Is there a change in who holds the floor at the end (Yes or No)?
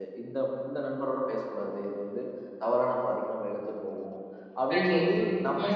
No